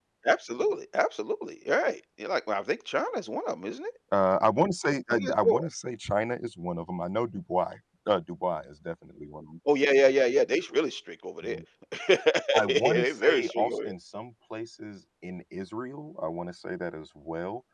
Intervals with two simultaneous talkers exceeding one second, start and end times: 12.7-13.9

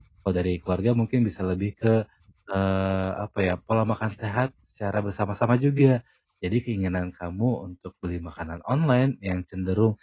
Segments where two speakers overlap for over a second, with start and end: none

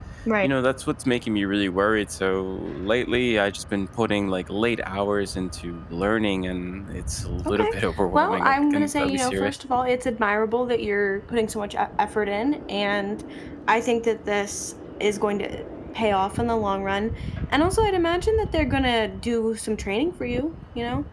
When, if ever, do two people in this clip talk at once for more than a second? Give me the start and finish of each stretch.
8.1-9.6

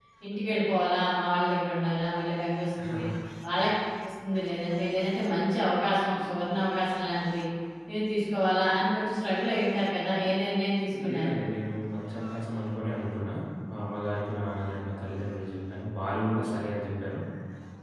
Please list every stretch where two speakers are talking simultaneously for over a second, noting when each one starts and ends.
none

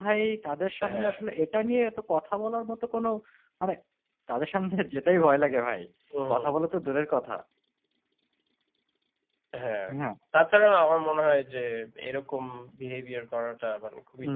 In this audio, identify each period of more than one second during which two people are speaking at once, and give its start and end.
none

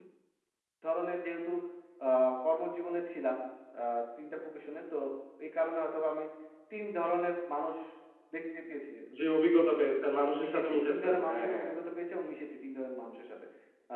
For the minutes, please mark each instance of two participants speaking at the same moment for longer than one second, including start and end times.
10.4-11.7

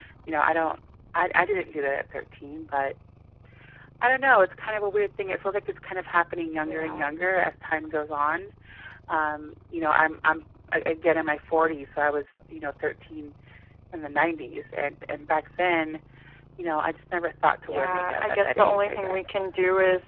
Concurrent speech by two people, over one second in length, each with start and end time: 17.7-19.4

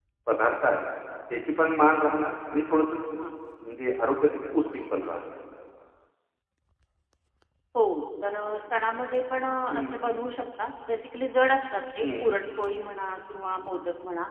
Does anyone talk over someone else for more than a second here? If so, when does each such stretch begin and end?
none

